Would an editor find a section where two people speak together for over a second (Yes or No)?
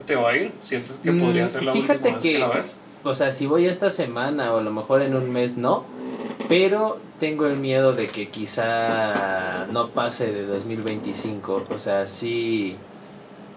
Yes